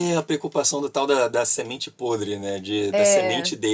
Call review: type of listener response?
listening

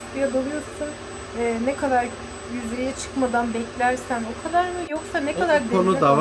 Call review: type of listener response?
taking over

